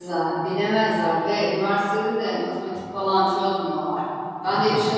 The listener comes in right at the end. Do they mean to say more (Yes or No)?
No